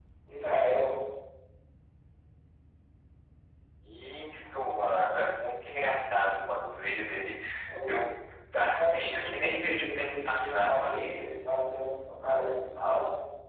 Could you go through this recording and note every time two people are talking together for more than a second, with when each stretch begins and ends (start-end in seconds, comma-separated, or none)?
8.8-10.9